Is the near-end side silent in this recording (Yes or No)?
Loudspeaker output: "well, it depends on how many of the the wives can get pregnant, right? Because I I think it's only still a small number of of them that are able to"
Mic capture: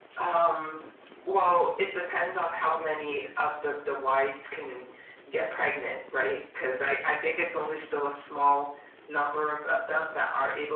Yes